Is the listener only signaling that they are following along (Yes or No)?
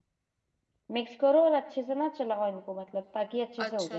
No